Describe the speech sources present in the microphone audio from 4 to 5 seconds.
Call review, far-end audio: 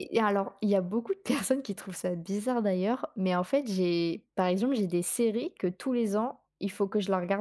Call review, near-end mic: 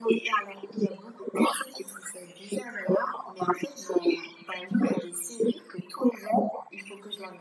echo only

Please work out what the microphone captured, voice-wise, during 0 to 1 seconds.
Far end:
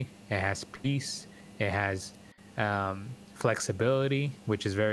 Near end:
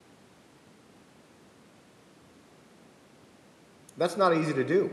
neither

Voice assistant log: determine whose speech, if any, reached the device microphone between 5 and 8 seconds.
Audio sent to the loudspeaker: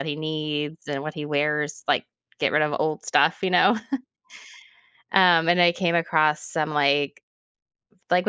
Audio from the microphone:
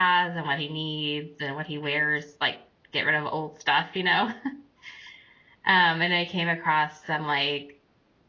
echo only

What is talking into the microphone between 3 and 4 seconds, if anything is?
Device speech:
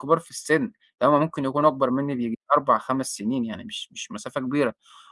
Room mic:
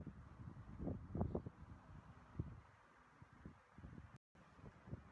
neither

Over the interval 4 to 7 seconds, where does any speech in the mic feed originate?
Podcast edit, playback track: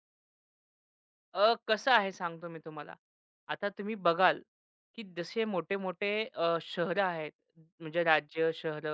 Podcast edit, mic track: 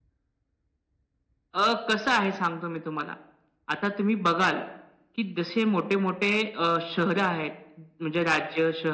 echo only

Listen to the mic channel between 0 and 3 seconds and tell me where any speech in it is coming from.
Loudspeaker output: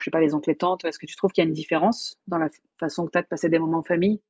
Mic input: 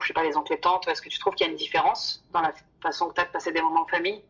echo only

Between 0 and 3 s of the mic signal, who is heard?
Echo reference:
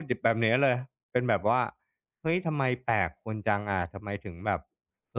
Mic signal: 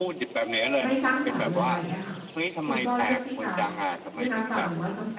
both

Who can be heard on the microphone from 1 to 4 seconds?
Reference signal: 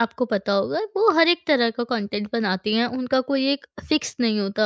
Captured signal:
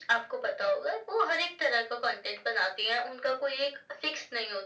echo only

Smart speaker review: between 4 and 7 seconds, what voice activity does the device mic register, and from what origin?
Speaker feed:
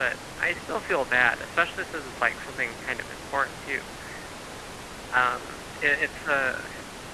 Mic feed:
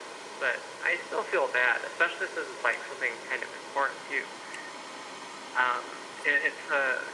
echo only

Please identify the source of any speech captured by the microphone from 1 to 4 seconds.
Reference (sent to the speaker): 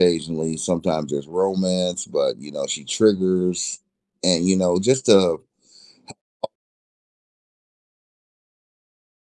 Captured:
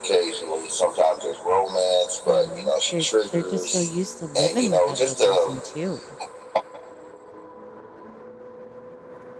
both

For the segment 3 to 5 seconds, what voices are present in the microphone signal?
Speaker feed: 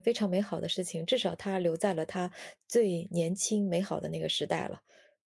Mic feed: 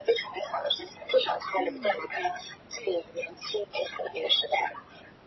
echo only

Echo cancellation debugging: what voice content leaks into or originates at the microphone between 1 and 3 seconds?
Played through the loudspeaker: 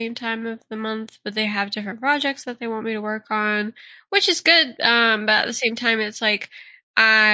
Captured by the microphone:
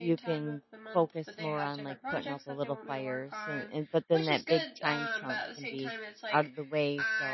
both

